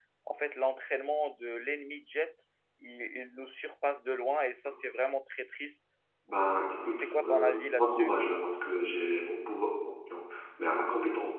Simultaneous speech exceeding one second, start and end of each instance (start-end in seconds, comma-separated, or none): 6.9-8.1